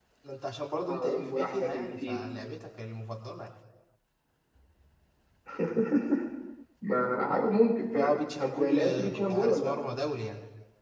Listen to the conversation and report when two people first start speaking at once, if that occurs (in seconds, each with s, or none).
0.9 s